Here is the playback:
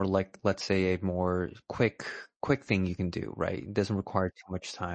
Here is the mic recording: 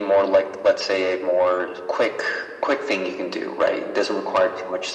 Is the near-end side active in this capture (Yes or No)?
No